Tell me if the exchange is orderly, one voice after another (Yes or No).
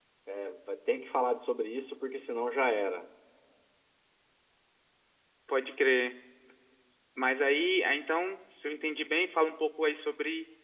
Yes